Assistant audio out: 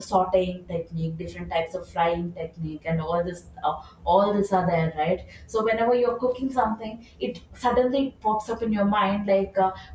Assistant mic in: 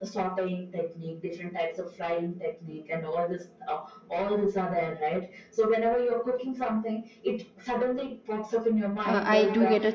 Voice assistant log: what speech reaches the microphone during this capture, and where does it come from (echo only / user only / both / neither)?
both